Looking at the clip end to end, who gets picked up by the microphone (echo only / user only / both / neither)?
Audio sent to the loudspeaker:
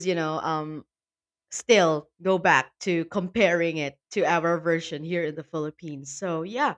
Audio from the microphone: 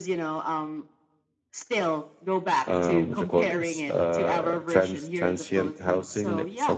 both